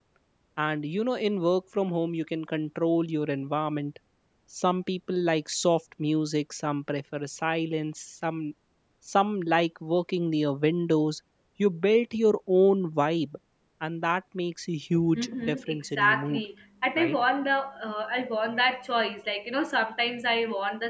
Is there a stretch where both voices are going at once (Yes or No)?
Yes